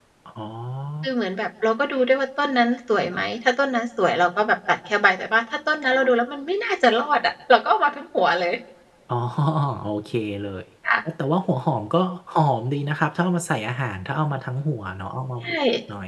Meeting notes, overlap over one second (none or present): none